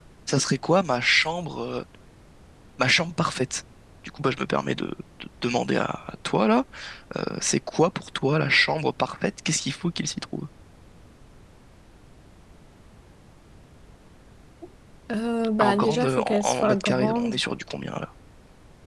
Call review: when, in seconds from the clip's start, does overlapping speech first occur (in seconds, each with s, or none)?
15.6 s